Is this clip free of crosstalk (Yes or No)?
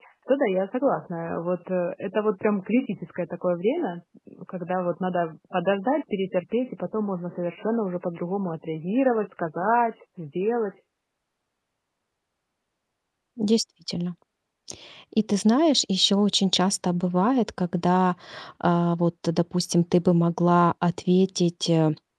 Yes